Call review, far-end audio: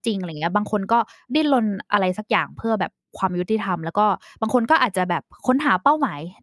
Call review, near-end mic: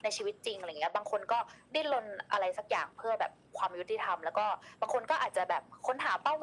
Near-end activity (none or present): none